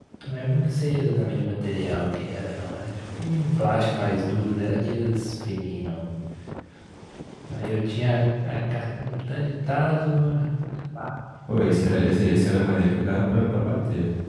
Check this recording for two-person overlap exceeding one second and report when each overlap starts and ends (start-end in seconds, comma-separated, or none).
none